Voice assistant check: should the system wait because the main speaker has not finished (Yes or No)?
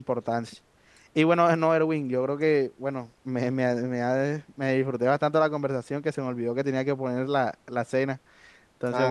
No